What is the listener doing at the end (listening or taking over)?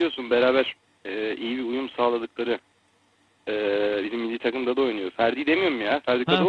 taking over